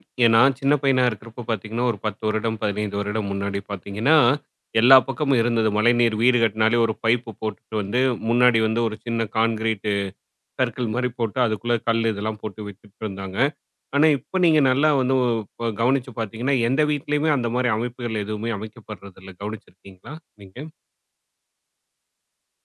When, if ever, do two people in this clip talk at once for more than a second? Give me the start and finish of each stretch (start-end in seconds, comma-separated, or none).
none